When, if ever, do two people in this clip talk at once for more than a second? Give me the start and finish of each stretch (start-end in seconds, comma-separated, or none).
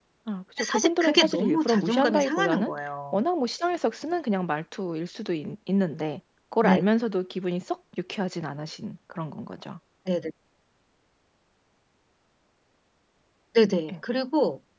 0.7-2.7